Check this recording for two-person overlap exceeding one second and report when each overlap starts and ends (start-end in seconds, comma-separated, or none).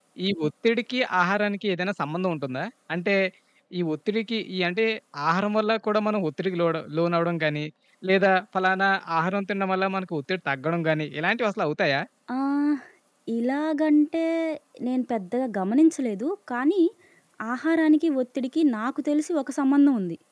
none